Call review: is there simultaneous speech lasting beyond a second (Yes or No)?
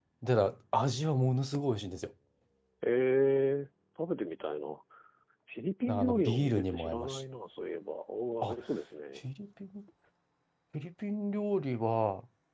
Yes